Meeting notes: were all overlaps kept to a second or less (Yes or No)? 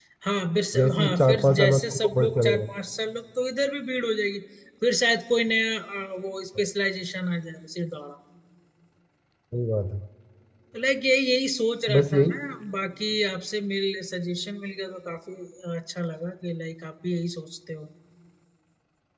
No